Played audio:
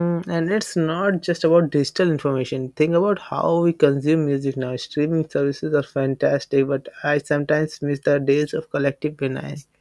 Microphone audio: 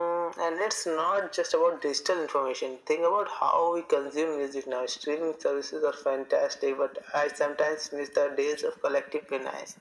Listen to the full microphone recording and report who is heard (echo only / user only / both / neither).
echo only